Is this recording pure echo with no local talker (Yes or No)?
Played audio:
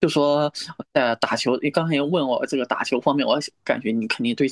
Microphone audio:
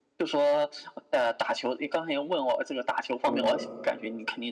No